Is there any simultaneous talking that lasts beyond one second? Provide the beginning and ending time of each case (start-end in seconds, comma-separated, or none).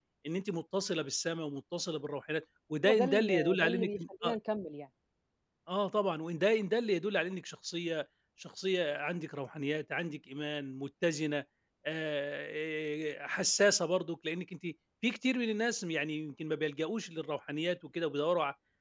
2.9-4.3